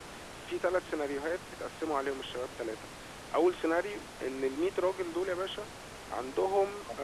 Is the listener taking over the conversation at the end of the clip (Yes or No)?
No